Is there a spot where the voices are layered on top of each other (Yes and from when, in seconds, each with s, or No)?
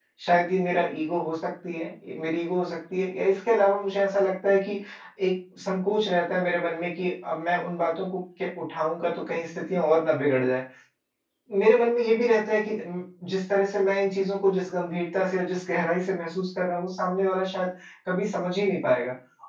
No